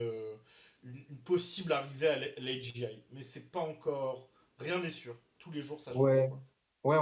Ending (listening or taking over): taking over